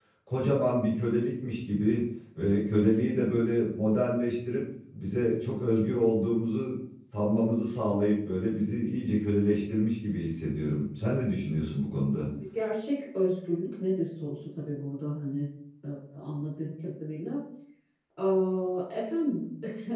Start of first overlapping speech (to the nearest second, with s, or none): none